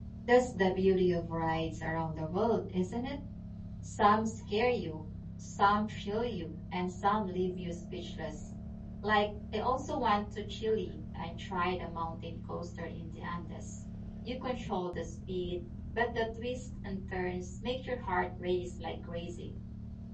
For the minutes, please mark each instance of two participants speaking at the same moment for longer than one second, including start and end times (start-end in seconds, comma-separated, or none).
none